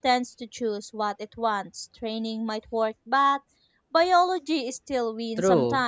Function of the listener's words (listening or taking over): taking over